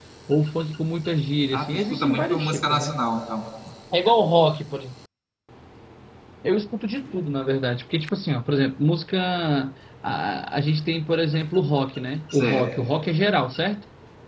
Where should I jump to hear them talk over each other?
2 s

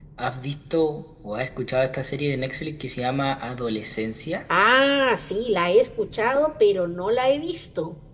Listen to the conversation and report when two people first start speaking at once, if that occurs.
none

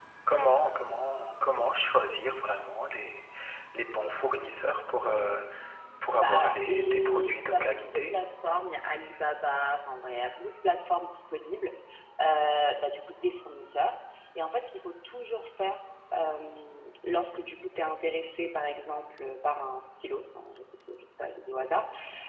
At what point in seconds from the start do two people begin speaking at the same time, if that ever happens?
6 s

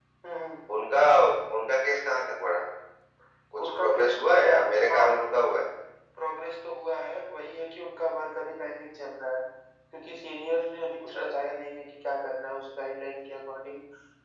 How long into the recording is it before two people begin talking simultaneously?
4 s

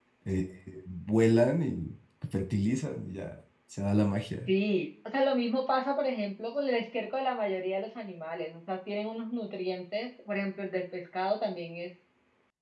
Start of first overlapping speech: none

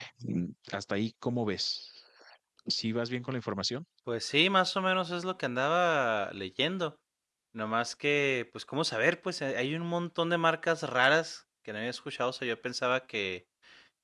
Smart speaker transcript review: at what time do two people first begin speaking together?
none

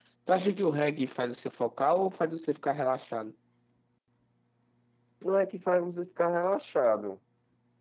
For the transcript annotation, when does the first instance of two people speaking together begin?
none

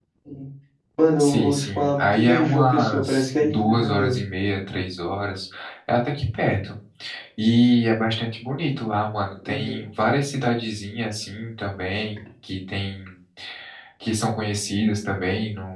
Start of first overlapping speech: 1 s

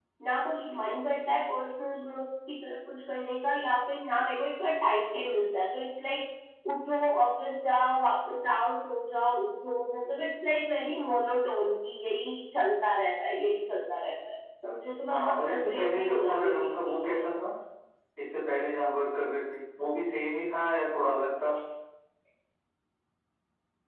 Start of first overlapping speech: 15 s

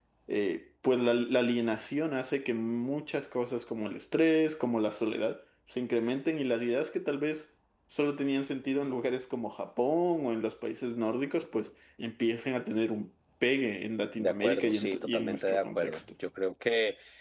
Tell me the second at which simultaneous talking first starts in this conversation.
14 s

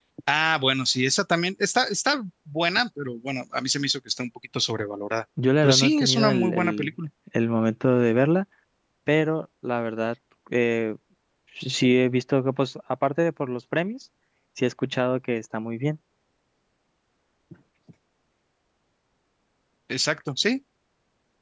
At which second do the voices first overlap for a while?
6 s

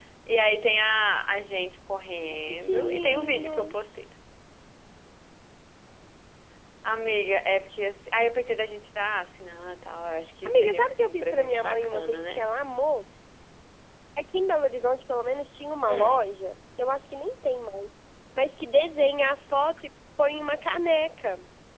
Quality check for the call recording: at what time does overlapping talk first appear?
2 s

